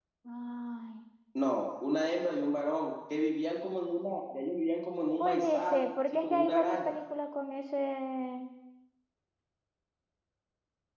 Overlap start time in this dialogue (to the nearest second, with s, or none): 5 s